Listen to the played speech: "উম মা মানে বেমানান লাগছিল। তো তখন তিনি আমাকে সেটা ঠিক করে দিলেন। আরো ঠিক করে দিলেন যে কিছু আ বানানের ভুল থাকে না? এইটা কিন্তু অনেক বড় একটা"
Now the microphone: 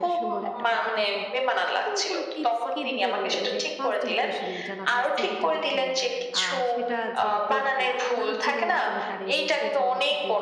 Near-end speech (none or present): present